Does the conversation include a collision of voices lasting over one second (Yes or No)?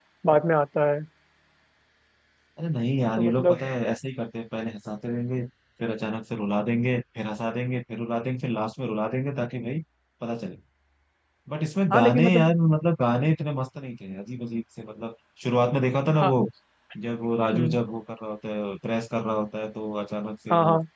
No